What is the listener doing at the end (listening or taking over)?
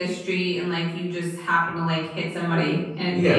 taking over